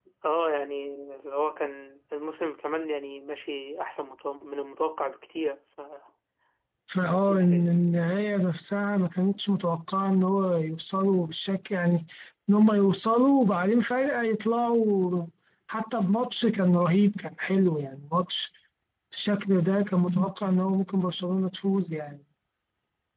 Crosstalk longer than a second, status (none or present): none